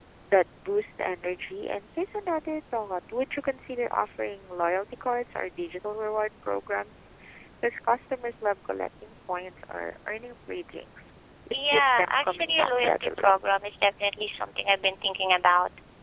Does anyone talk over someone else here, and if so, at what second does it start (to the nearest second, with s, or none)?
12 s